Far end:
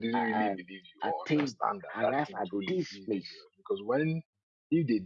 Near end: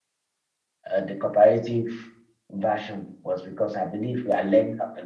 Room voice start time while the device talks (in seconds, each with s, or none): 0.9 s